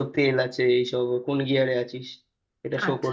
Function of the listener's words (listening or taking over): taking over